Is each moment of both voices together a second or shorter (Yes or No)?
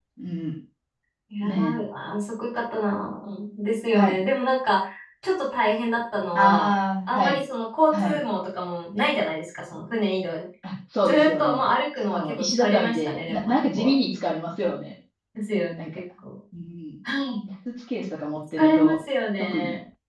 No